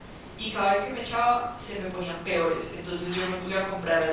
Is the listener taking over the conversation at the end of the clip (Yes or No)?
No